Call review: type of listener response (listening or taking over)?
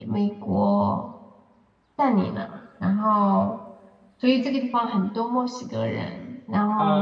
taking over